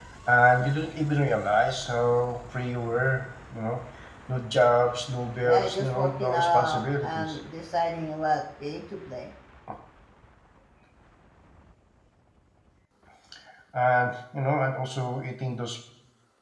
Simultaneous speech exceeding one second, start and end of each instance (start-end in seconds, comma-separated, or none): 5.4-7.4